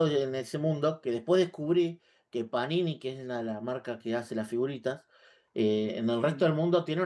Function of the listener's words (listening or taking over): listening